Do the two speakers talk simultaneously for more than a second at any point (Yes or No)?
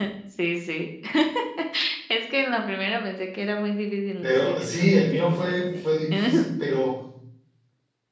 Yes